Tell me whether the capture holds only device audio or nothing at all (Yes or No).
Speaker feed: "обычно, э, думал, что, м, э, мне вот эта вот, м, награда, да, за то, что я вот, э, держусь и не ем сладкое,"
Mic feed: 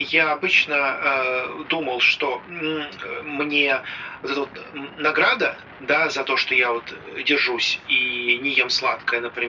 Yes